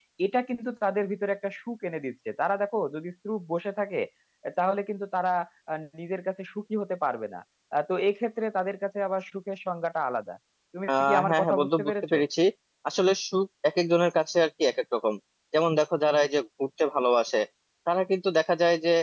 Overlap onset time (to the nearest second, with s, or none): 11 s